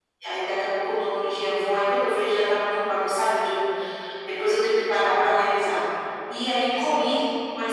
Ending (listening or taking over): listening